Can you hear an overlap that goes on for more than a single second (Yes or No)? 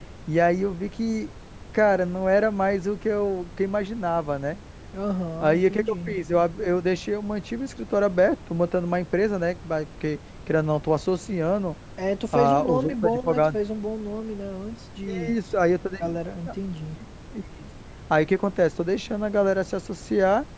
Yes